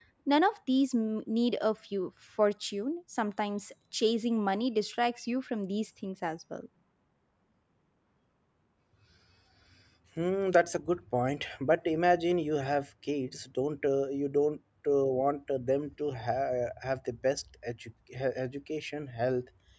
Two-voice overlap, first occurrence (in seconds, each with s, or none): none